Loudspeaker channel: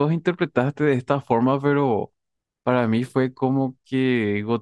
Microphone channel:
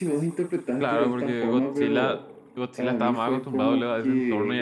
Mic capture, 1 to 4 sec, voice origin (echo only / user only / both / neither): both